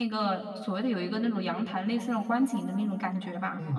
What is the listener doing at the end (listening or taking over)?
taking over